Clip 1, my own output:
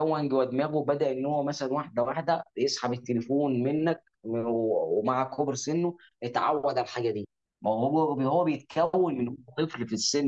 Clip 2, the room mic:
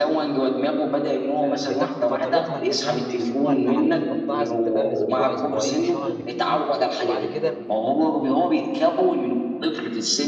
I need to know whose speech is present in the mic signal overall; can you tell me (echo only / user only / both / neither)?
both